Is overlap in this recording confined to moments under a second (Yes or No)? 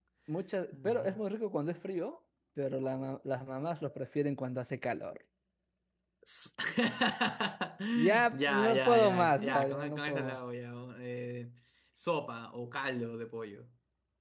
No